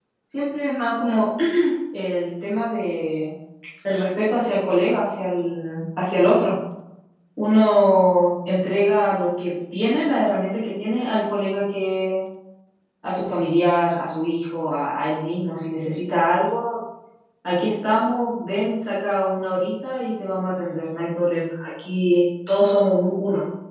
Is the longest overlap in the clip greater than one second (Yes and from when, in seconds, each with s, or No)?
No